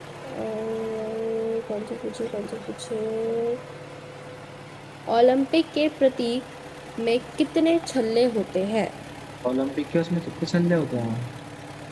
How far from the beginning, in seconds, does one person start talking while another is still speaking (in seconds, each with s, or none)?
none